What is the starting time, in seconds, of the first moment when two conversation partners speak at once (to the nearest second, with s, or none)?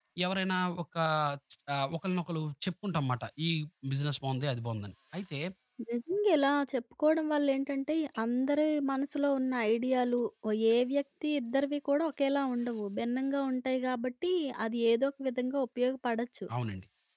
none